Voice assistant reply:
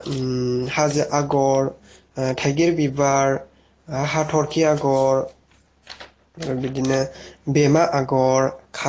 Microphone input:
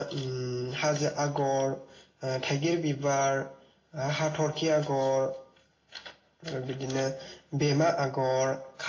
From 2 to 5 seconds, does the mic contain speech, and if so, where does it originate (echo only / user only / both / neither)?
echo only